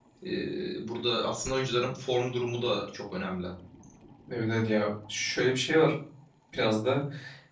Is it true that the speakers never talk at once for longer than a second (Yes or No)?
Yes